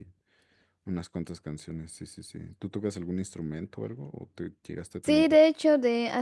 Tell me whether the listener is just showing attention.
No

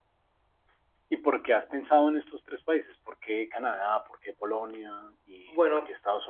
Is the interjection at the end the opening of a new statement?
Yes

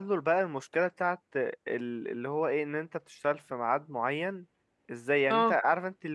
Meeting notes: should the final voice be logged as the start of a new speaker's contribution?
No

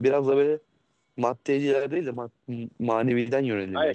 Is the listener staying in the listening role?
No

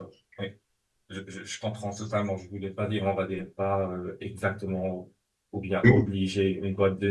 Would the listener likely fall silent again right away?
Yes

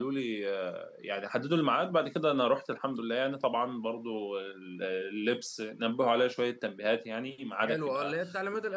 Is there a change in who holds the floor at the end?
Yes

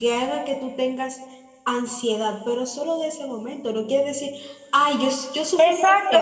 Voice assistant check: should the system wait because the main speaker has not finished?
No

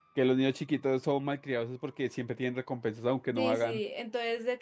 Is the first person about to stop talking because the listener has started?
Yes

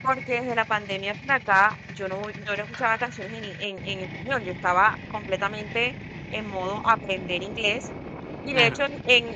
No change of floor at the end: Yes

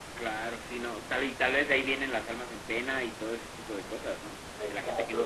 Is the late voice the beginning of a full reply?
Yes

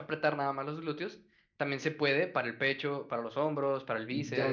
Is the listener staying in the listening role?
No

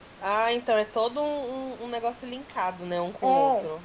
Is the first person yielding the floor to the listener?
Yes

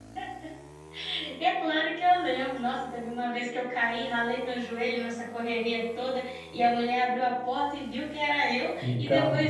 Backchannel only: Yes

